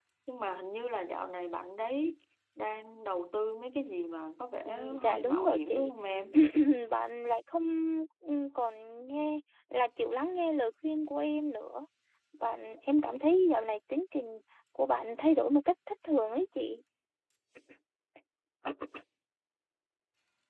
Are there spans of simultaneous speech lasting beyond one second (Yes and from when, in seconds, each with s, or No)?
Yes, from 4.7 s